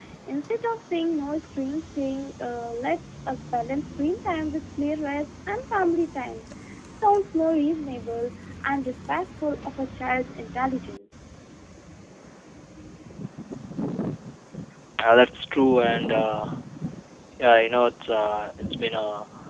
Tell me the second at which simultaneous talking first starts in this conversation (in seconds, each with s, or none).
none